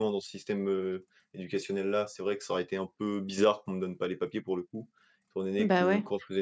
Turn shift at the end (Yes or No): No